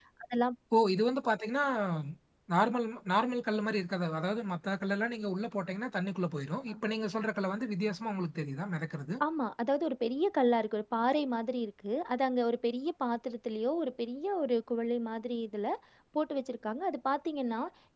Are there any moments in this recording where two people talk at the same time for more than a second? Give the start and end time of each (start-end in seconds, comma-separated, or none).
none